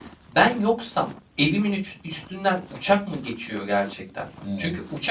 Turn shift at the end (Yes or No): No